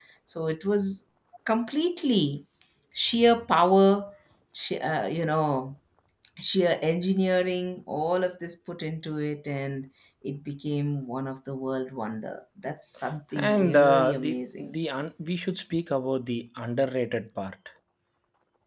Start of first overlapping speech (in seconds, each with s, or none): 13.4 s